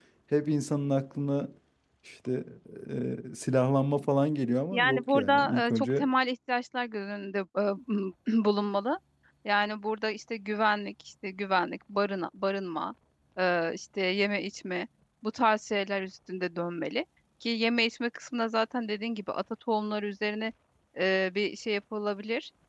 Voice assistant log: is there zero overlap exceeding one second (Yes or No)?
No